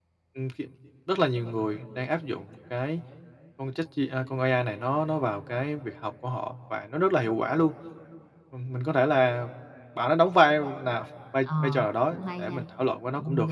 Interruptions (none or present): present